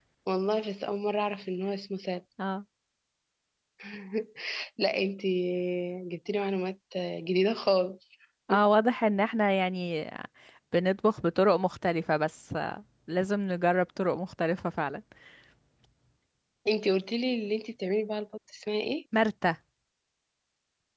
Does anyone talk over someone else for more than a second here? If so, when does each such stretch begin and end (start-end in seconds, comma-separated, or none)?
none